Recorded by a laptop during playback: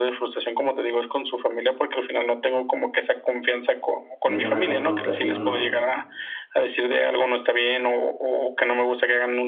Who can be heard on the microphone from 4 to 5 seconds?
both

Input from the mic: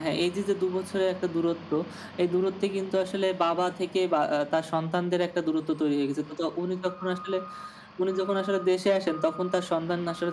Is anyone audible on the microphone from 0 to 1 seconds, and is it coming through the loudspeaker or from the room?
echo only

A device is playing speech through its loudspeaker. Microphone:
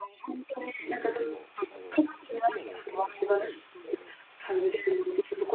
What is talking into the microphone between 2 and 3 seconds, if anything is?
both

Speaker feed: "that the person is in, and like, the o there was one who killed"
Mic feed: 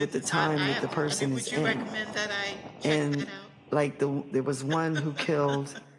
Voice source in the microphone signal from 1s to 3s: both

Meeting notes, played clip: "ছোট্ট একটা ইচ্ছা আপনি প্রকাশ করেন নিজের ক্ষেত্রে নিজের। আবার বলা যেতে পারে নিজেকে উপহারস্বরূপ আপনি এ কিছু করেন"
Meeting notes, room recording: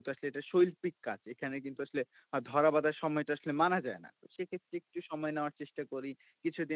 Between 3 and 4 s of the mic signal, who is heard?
user only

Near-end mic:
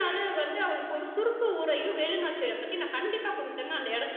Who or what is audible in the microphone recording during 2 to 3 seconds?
echo only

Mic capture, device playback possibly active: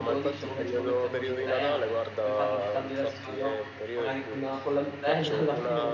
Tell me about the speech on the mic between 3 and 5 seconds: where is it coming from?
both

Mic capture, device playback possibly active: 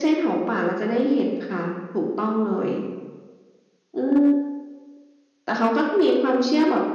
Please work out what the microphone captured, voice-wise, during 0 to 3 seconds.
echo only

